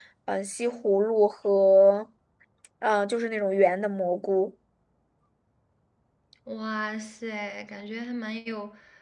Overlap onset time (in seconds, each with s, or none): none